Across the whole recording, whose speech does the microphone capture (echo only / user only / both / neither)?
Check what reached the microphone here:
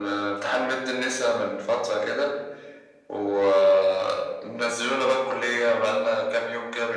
echo only